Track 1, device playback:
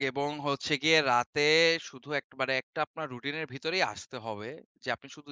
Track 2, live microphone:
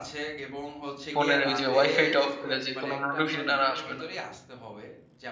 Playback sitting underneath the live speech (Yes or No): Yes